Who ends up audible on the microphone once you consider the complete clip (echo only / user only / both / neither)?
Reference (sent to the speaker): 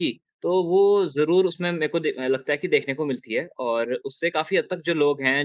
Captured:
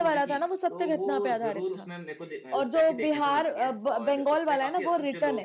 both